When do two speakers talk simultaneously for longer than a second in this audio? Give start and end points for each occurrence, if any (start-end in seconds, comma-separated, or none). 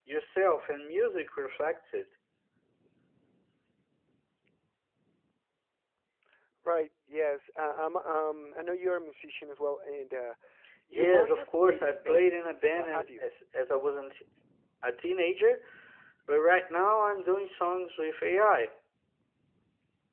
10.9-13.3